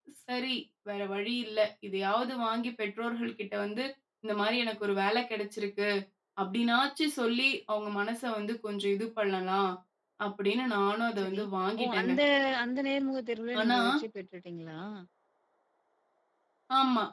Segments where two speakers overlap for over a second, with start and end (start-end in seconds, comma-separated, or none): none